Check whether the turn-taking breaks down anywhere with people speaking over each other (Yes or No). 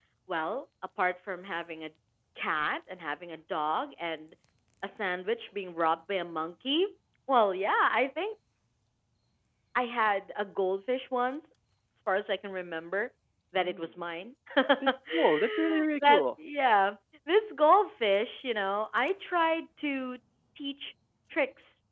Yes